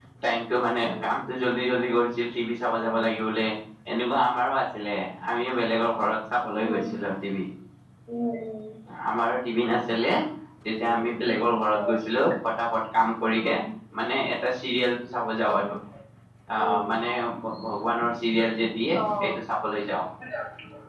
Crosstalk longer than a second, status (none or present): none